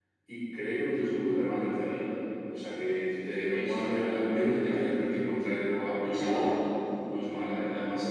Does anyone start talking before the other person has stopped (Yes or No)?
Yes